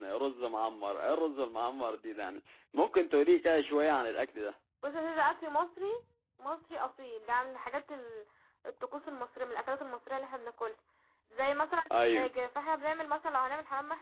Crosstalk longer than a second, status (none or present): none